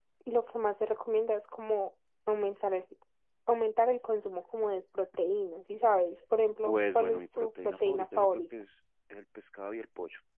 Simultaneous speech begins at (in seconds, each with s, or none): 6.6 s